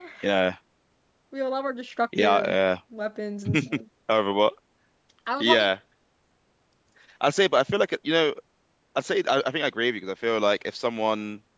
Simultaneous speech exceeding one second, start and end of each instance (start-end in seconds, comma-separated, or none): none